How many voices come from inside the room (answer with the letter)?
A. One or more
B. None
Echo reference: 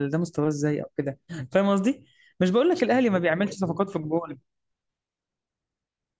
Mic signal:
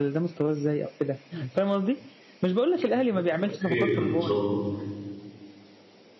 A